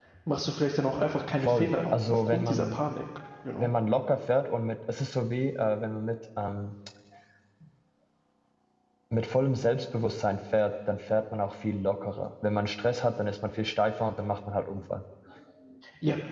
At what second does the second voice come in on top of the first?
1 s

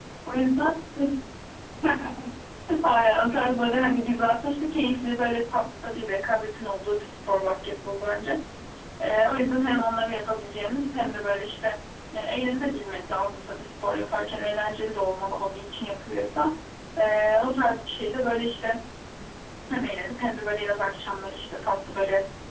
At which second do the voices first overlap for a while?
none

